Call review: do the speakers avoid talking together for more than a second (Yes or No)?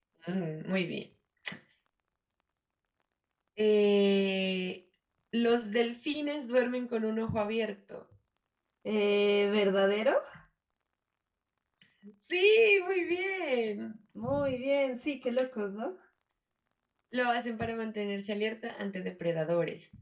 Yes